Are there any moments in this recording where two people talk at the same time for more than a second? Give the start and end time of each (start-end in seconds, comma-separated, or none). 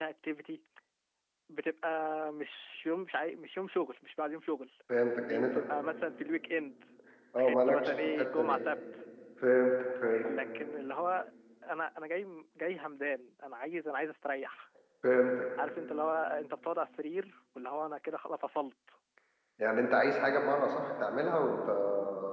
7.4-8.6